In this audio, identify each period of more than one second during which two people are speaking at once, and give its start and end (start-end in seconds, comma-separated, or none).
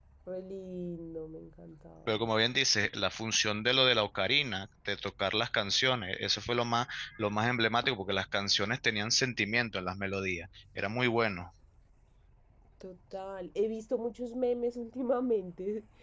none